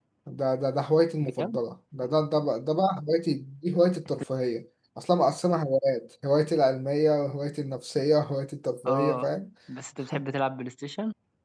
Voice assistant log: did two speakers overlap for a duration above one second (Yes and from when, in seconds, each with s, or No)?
No